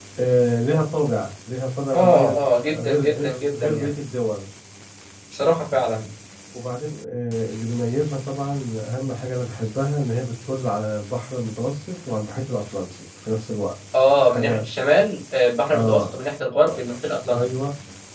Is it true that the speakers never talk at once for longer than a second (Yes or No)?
No